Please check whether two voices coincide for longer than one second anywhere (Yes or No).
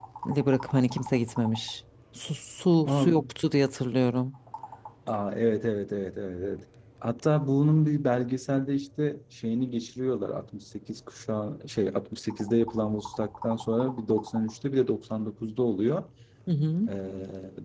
No